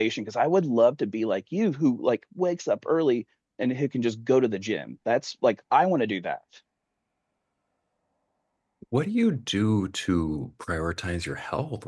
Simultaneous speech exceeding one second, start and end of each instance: none

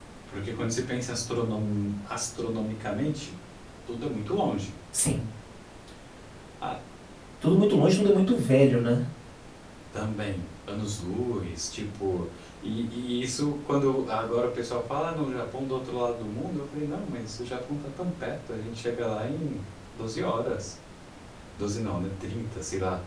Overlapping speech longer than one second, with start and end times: none

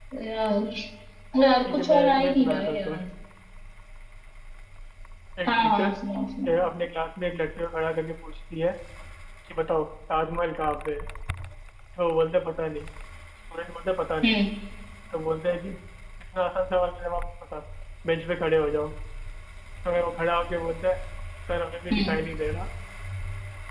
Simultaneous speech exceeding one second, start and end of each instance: 1.7-3.0

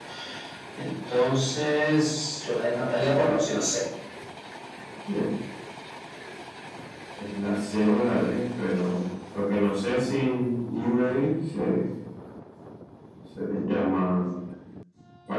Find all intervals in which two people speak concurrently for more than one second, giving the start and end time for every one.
none

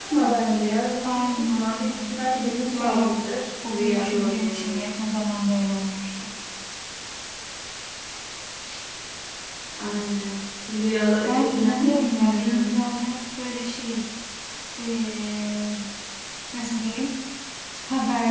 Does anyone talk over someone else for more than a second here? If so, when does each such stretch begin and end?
1.1-3.2, 3.6-4.9, 11.2-12.8

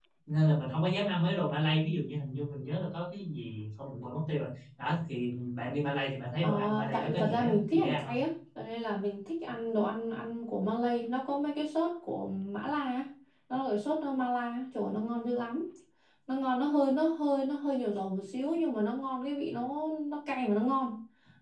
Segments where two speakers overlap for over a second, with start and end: 6.4-8.2

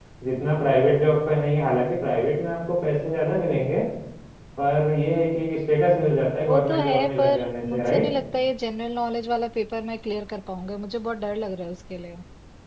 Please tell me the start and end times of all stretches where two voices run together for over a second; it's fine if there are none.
6.5-8.0

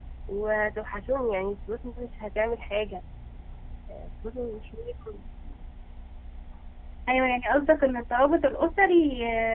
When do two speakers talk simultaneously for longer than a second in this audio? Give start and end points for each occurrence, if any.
none

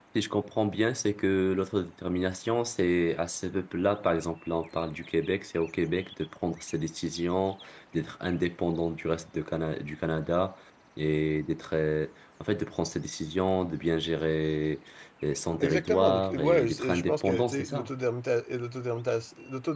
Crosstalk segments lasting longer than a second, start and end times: 15.6-17.9

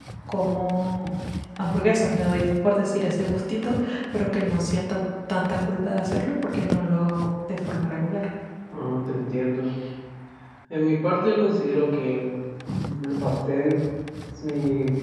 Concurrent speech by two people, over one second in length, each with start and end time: none

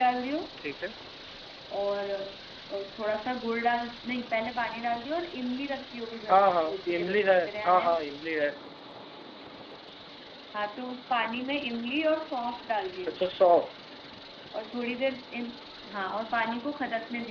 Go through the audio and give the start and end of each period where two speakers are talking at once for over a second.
6.3-7.9

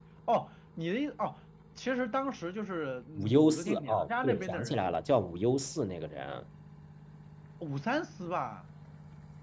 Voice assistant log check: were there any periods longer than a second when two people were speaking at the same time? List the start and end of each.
3.2-4.8

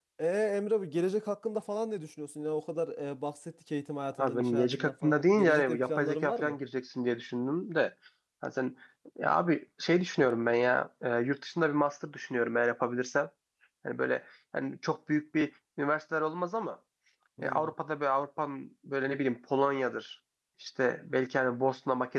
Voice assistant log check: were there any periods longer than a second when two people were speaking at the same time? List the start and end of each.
4.2-6.6

